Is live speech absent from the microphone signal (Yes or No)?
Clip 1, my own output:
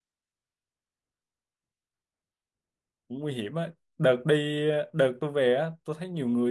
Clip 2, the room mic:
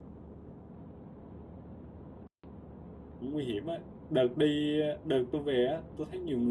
Yes